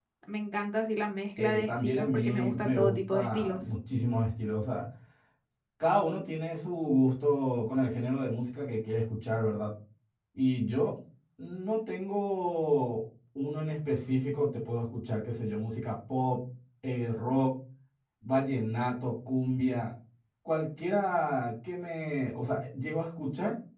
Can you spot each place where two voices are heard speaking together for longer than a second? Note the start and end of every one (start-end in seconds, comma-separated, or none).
1.4-3.6